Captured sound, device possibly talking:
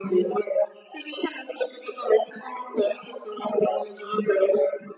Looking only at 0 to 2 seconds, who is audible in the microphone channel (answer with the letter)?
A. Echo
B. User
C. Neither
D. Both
A